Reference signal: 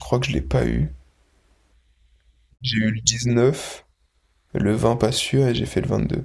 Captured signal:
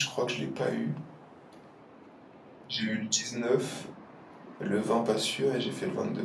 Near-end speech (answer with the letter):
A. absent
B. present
A